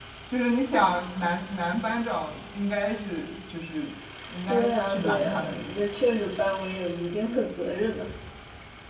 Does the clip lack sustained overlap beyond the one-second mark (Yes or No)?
No